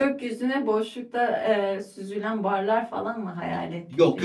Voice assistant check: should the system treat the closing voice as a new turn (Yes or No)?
Yes